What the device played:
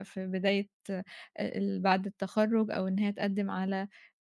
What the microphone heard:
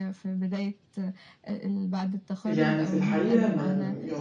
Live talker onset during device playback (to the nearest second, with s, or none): 2 s